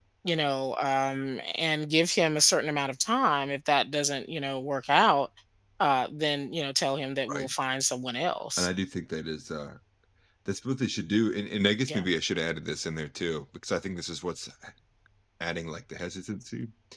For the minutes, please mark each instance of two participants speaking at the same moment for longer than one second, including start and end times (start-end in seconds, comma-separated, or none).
none